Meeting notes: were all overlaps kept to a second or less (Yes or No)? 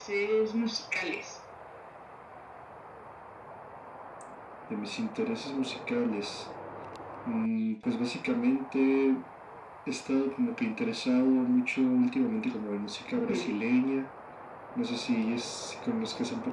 Yes